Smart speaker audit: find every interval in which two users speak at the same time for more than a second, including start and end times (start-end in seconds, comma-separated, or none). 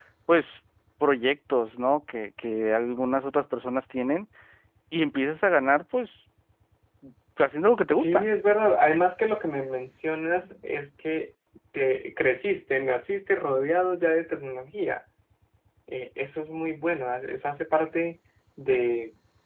none